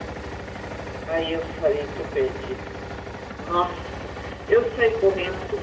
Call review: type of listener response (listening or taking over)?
listening